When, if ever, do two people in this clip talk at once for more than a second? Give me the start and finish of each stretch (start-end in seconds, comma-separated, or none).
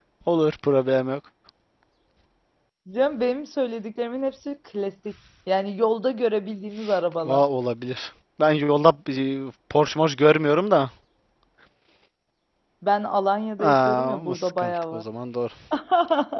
13.6-15.0